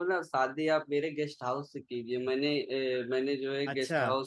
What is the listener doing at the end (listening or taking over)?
listening